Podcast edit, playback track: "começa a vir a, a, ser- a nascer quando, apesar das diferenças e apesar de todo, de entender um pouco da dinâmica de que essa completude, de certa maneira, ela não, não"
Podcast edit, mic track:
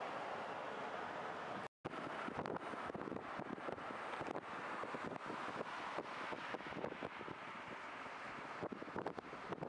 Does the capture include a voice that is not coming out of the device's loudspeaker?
No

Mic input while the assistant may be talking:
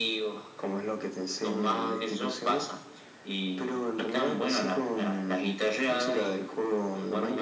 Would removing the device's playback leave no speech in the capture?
Yes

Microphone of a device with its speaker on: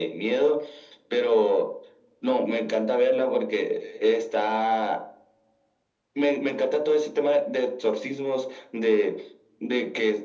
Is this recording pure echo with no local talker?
Yes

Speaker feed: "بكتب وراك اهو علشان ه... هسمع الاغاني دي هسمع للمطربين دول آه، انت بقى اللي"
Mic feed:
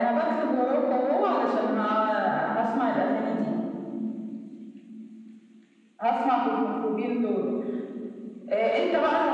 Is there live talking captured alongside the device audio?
No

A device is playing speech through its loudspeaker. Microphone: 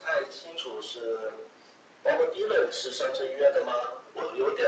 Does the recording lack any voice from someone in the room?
Yes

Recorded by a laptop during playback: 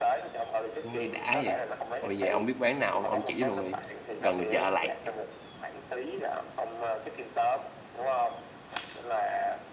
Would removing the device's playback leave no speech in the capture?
No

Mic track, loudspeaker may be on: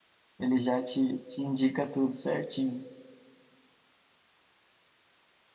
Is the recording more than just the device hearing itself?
Yes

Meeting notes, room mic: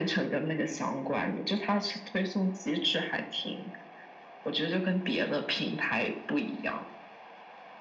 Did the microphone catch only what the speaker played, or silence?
Yes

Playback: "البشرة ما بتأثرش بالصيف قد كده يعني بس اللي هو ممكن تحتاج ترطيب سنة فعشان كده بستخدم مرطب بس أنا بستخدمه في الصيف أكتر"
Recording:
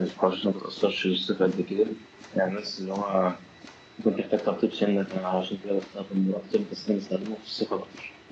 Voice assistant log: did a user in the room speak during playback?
No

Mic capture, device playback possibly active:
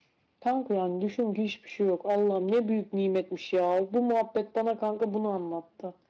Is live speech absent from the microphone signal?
Yes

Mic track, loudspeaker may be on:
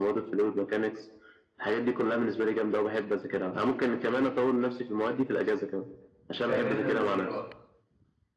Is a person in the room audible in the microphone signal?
Yes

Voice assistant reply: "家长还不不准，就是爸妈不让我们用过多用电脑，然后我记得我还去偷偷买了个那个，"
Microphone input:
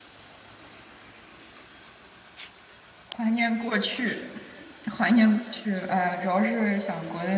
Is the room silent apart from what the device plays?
No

